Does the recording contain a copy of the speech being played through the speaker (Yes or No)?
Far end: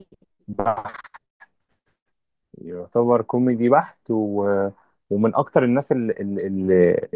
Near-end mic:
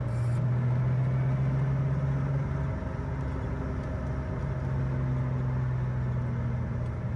No